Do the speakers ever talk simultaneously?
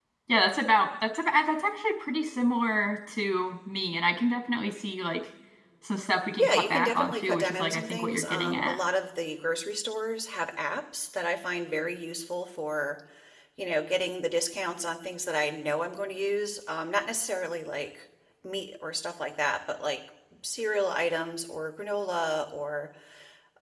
Yes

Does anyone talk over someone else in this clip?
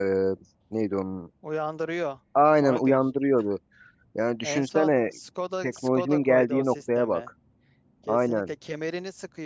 Yes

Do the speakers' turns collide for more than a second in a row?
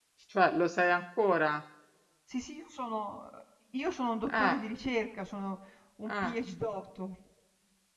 No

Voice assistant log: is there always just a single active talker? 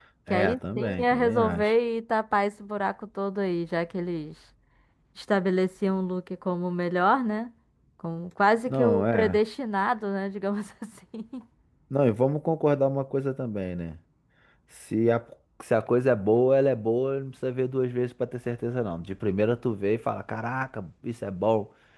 No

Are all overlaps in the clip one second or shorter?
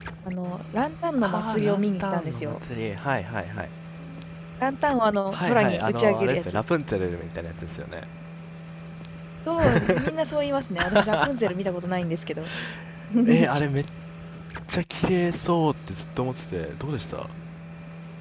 No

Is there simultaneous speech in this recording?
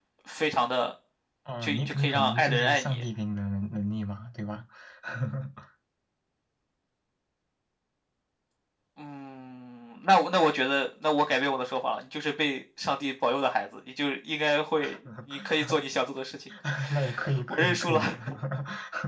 Yes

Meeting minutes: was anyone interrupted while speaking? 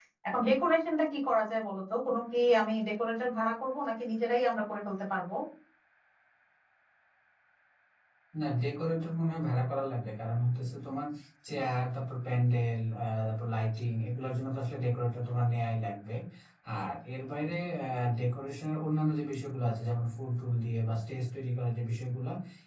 No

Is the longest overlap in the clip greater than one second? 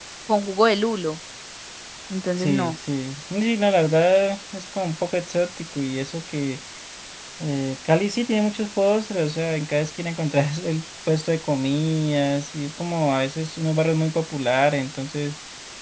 No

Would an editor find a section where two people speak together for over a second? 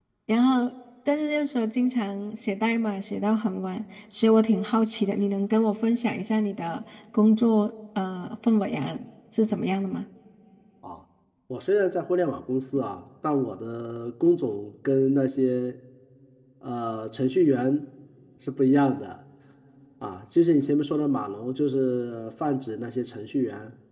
No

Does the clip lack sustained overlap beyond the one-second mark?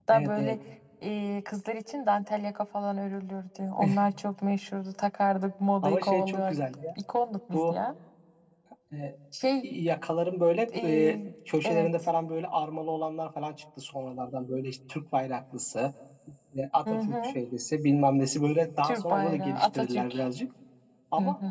No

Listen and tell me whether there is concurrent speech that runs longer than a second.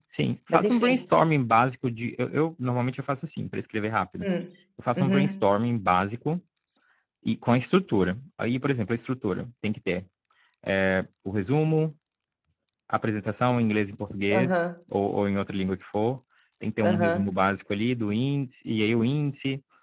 No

